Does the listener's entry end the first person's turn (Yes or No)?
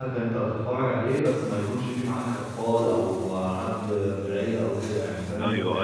Yes